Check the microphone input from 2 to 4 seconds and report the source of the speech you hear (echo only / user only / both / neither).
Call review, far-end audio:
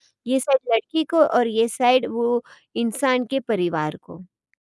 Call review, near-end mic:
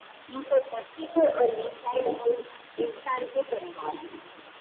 echo only